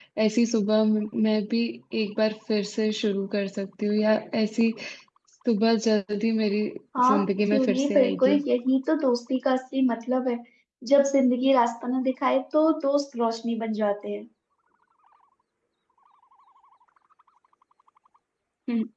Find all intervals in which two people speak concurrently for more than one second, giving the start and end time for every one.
7.1-8.4

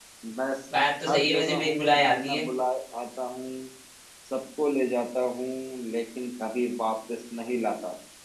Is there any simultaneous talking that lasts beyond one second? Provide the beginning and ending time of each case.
1.1-2.4

